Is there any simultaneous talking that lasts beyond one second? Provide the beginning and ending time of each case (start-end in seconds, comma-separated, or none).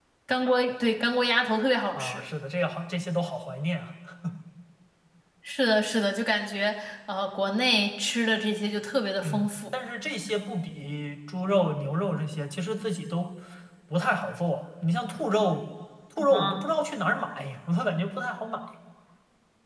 none